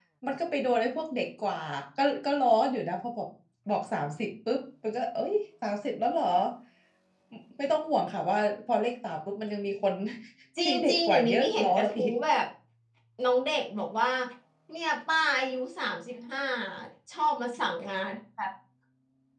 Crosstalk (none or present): present